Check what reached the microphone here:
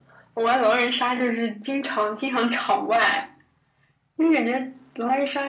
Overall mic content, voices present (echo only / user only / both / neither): echo only